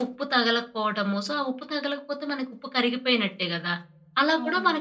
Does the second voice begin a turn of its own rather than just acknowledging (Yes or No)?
No